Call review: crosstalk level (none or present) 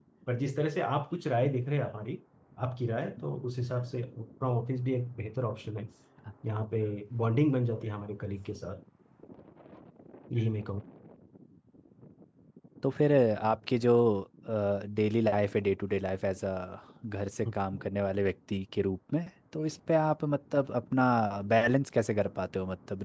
none